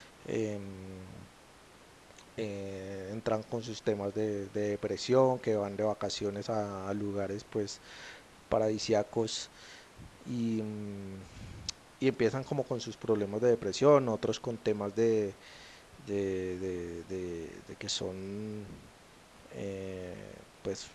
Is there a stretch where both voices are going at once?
No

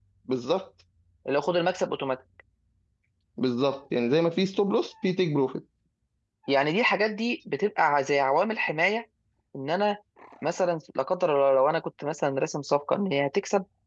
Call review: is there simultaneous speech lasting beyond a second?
No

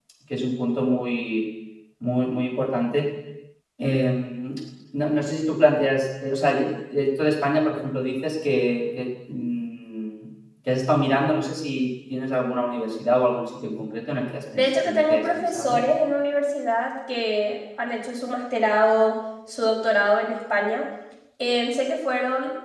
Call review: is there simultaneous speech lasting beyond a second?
Yes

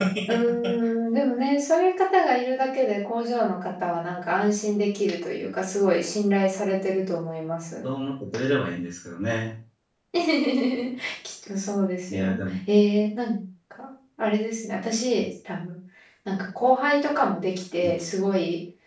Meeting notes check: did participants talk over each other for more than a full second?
No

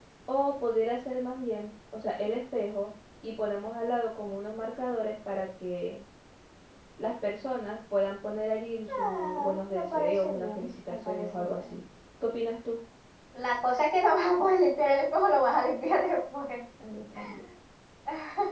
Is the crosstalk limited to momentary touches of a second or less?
No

